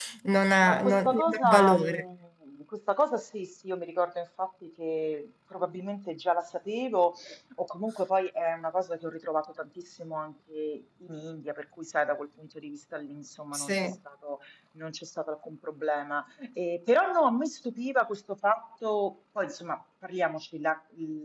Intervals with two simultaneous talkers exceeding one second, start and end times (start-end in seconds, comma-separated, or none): 0.6-2.0